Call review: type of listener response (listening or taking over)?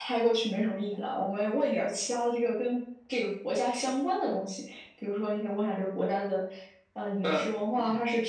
listening